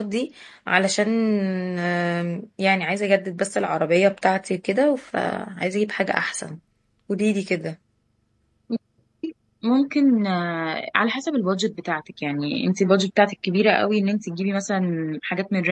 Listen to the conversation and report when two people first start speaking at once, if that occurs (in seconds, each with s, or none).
none